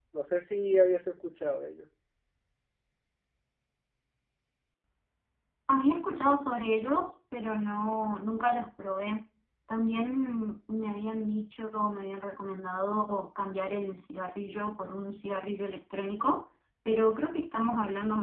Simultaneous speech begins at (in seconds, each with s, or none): none